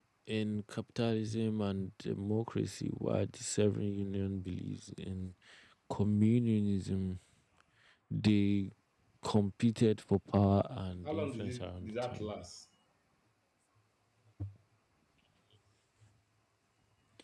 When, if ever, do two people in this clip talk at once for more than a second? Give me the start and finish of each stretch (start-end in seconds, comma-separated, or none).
11.1-12.3